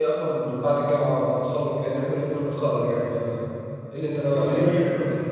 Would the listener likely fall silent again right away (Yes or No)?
No